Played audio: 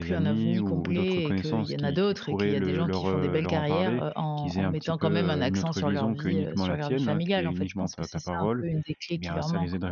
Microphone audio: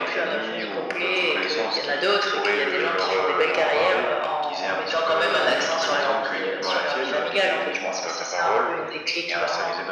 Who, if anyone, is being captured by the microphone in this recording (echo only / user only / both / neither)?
echo only